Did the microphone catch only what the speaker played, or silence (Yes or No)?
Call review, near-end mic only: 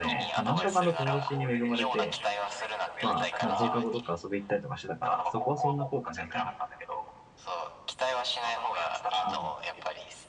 No